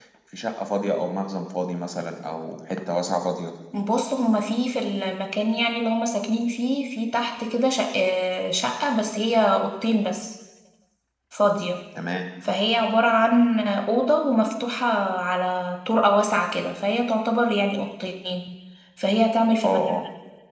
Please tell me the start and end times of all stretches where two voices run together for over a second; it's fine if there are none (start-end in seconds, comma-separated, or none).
none